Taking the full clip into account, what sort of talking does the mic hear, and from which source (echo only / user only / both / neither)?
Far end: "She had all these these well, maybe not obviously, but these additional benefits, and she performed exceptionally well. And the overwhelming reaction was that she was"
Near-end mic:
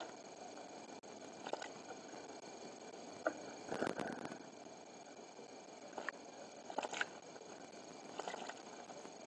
neither